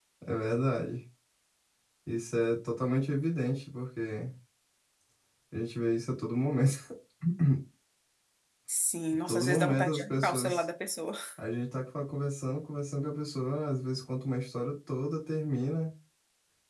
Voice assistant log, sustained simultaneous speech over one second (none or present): present